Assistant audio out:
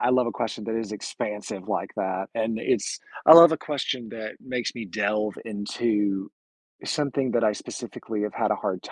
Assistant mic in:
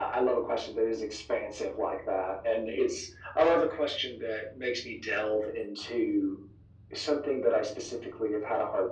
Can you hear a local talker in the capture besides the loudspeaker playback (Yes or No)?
No